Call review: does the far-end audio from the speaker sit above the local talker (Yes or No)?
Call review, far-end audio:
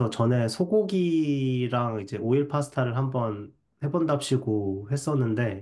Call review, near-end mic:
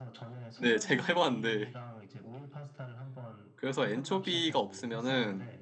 No